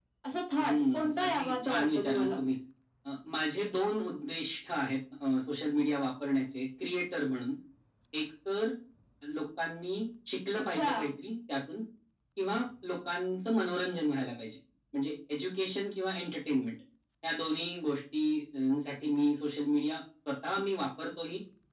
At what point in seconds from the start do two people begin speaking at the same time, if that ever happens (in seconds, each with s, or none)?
0.6 s